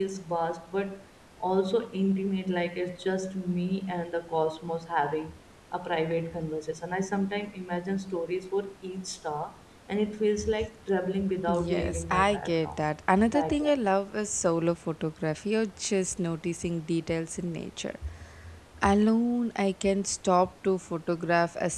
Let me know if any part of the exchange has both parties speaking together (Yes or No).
Yes